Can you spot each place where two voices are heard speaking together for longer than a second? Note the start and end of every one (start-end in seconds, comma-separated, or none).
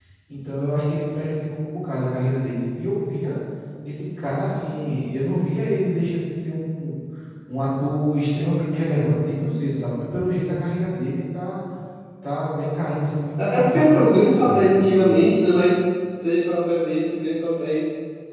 13.4-14.8